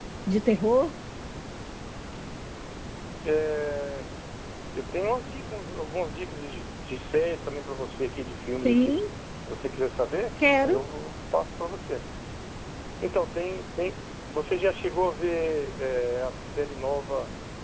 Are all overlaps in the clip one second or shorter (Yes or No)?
Yes